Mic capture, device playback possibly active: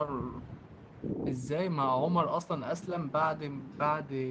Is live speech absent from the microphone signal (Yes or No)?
No